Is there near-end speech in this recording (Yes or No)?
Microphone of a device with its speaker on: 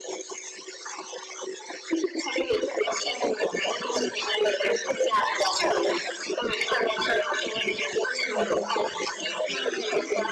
Yes